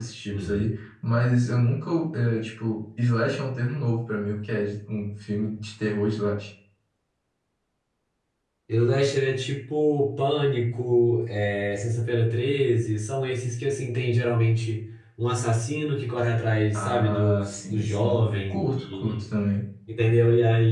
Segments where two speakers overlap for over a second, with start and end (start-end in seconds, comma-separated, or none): 16.7-19.2